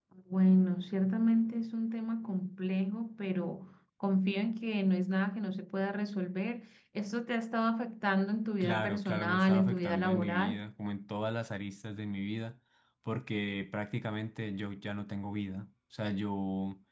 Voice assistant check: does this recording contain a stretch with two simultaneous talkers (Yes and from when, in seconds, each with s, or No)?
Yes, from 8.6 s